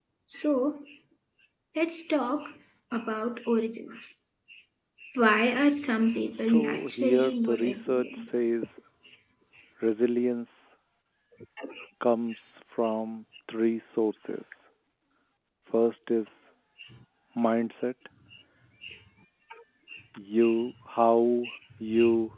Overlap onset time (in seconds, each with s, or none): 6.5 s